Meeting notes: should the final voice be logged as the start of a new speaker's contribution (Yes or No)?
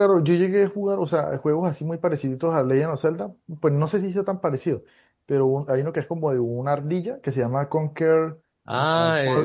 Yes